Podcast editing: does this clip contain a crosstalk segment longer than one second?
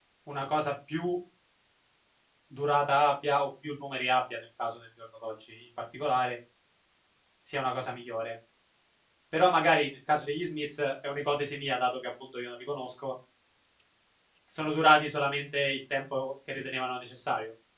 No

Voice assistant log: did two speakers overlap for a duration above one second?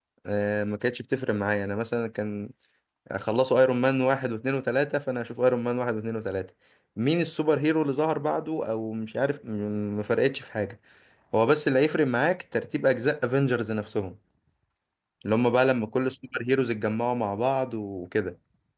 No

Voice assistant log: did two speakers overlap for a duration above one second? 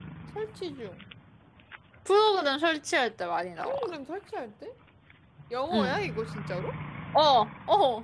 No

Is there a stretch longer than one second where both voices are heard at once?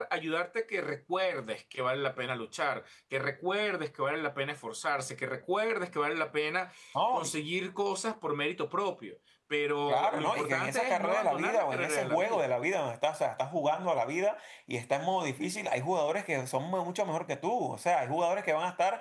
Yes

